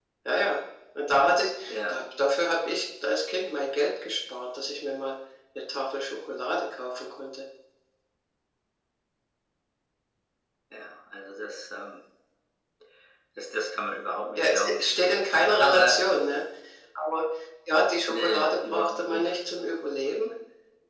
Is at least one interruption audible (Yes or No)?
Yes